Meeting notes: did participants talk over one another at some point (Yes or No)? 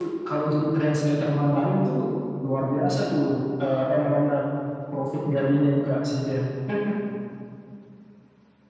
No